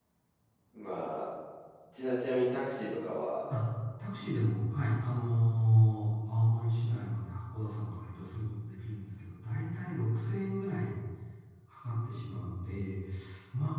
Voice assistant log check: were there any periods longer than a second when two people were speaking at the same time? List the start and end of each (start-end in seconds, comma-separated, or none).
none